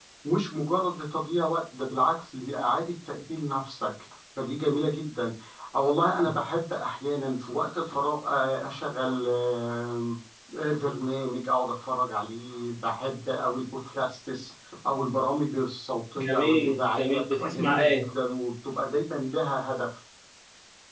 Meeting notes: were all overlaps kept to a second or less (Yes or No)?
No